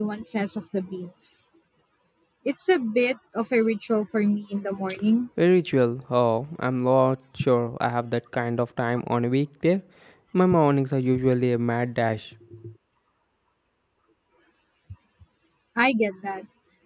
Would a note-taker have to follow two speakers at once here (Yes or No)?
No